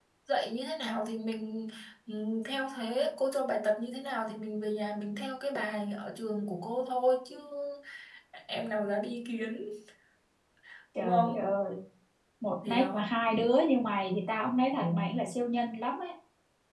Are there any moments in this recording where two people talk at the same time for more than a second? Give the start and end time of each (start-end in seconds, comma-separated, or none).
none